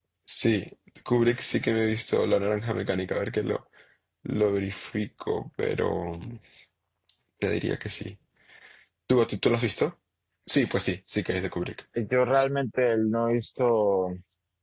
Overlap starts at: none

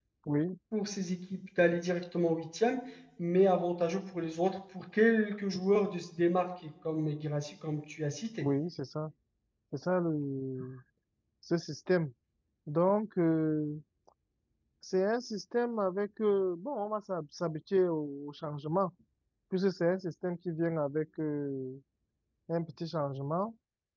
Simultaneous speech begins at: none

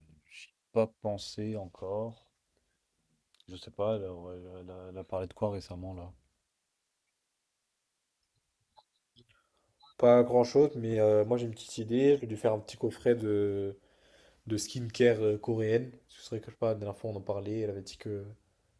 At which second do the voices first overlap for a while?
none

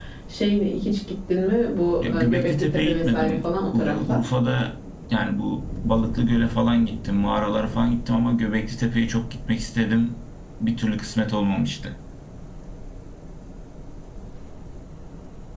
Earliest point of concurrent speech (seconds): 2.0 s

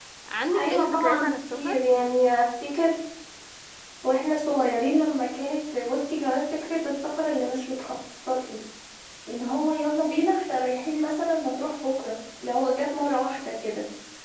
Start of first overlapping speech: 0.6 s

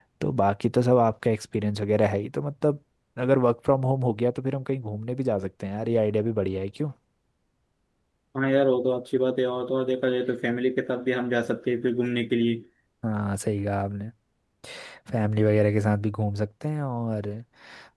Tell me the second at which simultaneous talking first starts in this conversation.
none

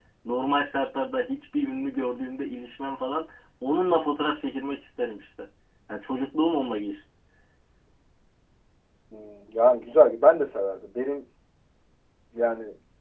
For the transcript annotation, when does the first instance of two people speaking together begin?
none

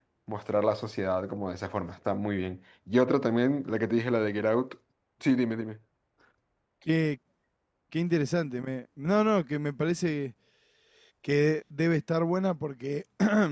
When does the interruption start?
none

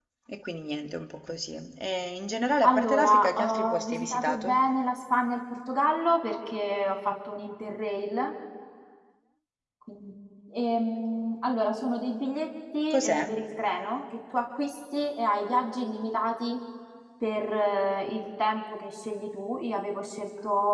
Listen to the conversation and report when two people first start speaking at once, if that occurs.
2.6 s

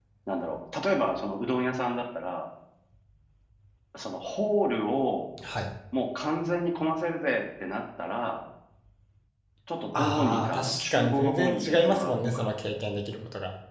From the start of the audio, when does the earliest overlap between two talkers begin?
10.0 s

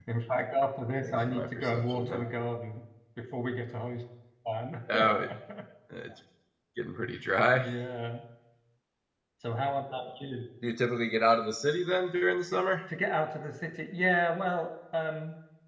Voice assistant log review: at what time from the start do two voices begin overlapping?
1.0 s

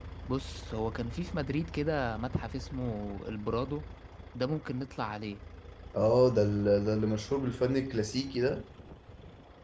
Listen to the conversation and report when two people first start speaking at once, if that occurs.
none

